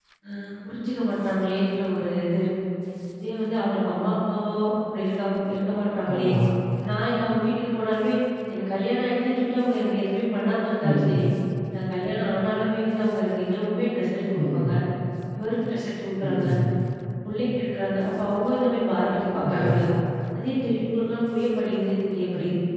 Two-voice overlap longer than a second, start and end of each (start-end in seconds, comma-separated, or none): none